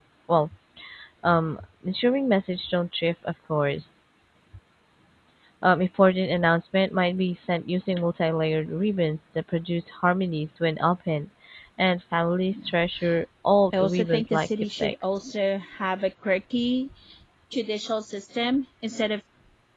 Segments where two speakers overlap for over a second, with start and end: 13.8-15.2

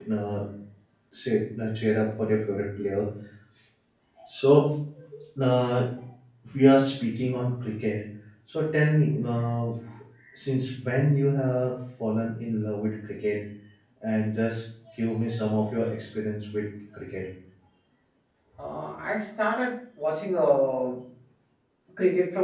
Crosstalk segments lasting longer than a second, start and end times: none

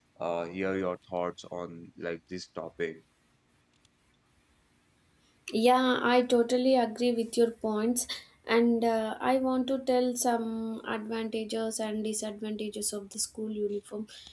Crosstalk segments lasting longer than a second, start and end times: none

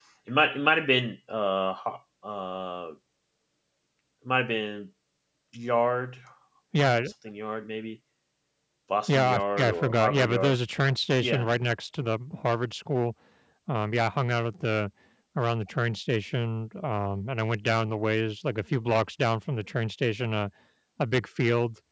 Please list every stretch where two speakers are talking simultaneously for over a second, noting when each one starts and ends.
9.1-10.6

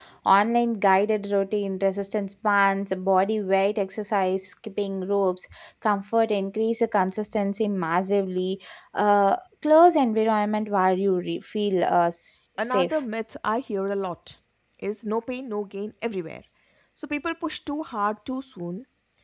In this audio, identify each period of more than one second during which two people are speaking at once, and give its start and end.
none

